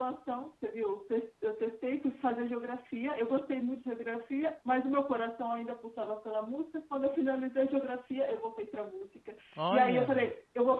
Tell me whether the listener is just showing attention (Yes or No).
Yes